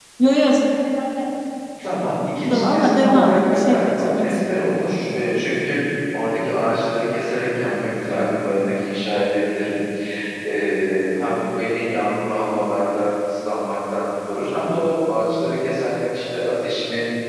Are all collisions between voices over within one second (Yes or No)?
No